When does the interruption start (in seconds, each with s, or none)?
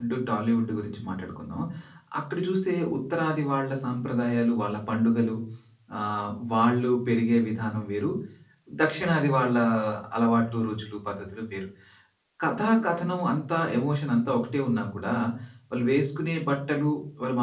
none